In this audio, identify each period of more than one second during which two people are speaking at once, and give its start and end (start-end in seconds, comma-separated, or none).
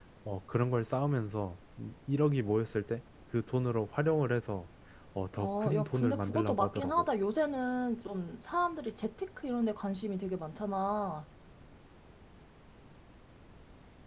5.4-7.0